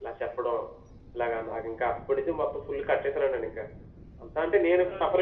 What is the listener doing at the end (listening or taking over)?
taking over